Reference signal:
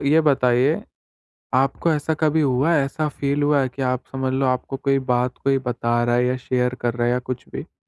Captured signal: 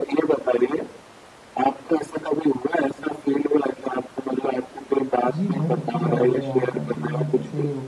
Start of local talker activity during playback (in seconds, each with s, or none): 5.3 s